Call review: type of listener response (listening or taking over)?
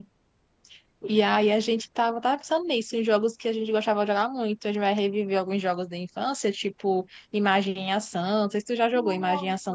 taking over